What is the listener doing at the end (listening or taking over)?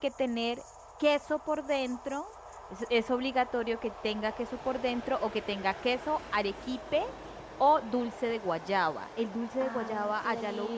taking over